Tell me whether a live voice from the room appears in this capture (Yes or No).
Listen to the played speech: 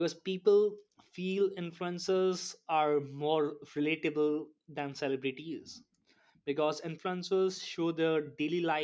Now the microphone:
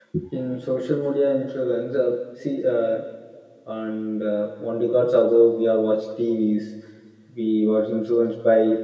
Yes